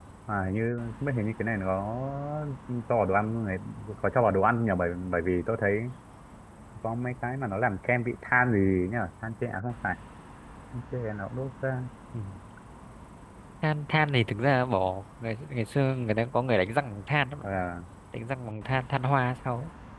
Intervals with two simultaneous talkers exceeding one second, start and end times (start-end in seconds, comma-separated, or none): none